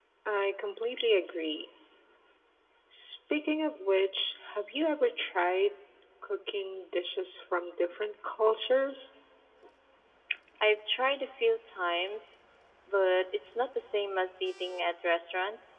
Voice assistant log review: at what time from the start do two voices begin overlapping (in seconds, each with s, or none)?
none